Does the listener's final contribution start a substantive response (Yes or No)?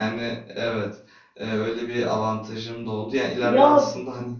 No